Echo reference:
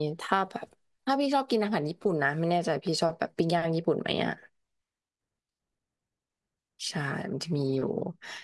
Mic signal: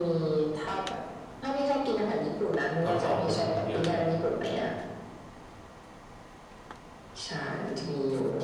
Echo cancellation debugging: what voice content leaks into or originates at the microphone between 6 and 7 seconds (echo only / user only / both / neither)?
neither